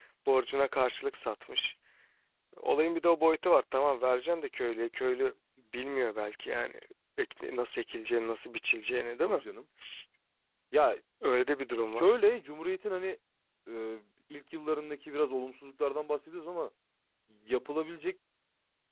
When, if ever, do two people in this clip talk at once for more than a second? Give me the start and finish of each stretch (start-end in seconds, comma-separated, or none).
none